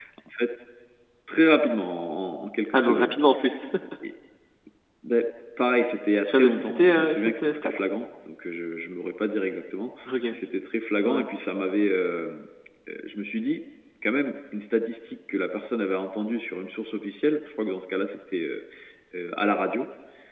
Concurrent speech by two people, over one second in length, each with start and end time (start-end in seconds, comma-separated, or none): 6.2-7.7